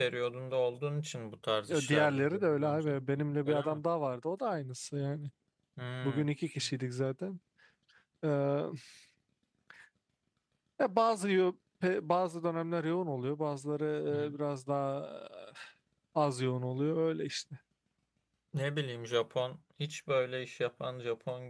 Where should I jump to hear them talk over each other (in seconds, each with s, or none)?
1.7 s